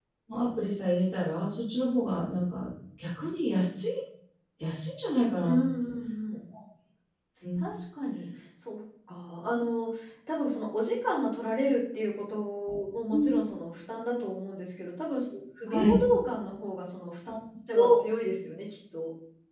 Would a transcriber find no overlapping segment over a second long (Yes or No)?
Yes